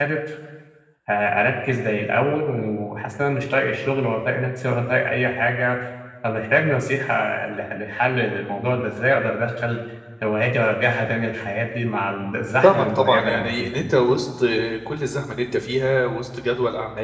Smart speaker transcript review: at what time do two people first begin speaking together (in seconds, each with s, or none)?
12.6 s